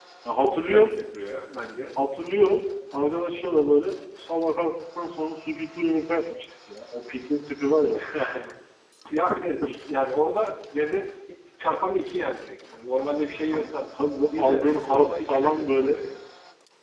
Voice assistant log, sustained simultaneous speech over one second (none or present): present